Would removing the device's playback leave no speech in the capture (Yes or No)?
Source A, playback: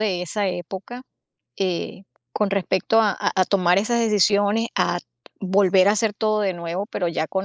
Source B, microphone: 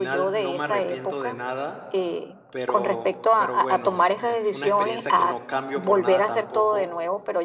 No